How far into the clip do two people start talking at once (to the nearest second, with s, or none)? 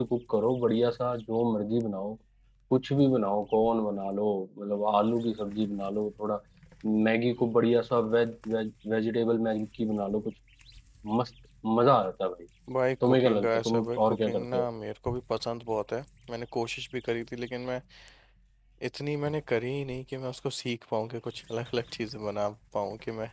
13 s